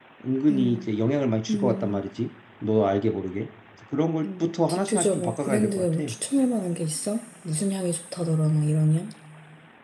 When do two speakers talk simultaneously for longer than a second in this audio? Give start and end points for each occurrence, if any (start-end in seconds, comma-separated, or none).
4.3-6.0